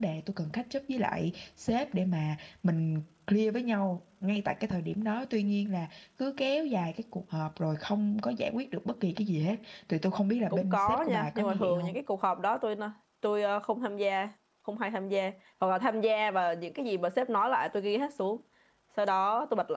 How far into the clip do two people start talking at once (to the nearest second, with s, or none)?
11 s